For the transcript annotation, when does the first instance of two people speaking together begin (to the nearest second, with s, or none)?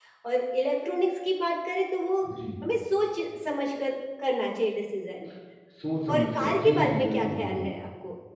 6 s